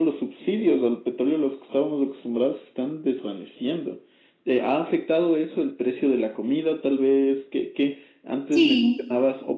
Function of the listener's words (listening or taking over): listening